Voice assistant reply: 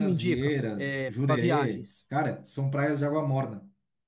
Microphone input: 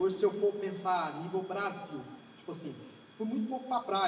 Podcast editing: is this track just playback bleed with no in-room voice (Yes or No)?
No